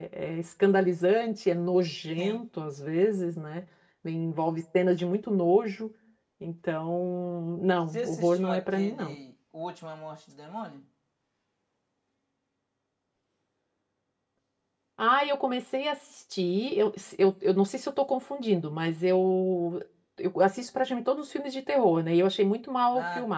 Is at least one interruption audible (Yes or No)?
Yes